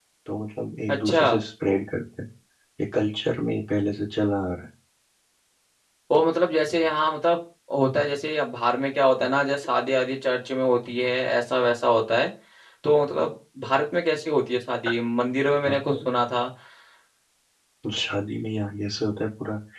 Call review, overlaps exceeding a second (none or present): none